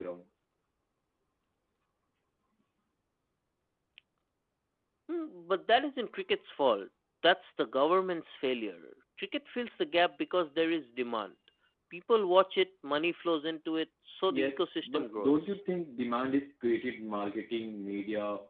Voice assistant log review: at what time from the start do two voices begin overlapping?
14.3 s

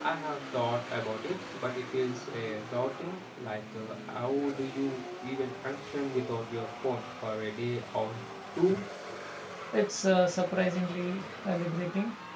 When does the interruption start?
none

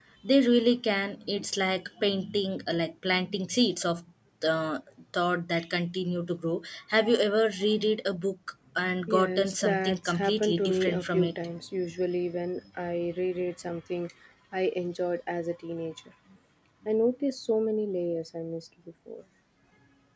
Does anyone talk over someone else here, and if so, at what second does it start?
9.1 s

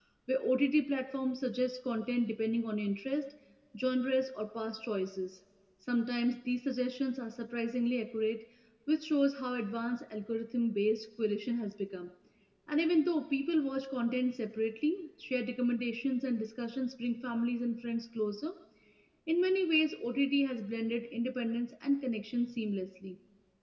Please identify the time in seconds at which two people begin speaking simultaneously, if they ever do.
none

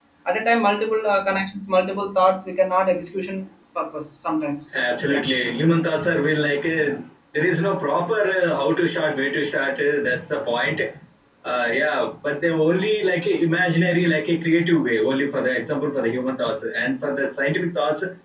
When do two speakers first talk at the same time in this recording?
none

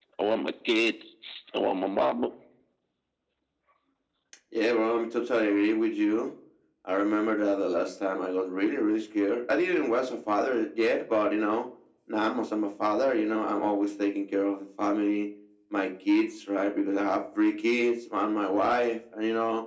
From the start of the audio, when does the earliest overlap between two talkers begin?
none

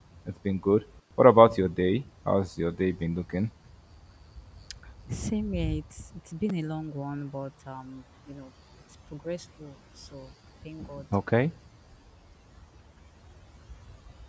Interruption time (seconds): none

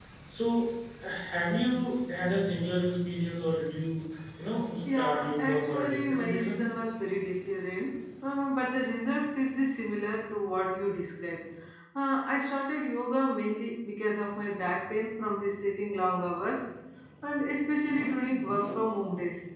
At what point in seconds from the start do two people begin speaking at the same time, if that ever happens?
4.8 s

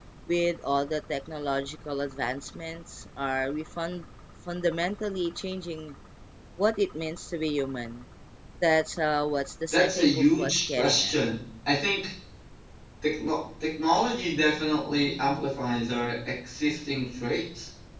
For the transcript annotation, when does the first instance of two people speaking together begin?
9.7 s

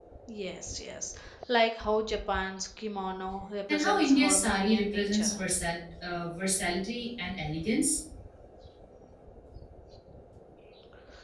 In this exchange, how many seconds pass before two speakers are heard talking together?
3.7 s

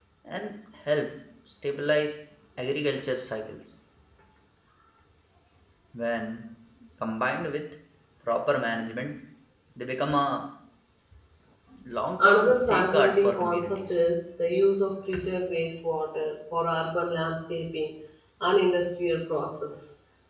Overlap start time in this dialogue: 12.2 s

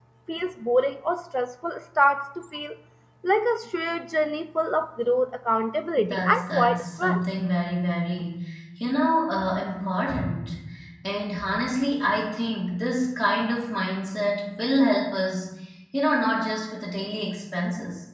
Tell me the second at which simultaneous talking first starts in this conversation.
6.0 s

